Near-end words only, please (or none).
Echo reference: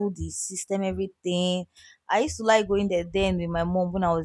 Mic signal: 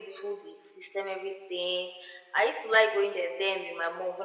none